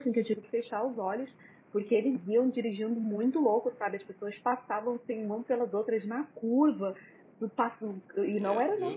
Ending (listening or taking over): listening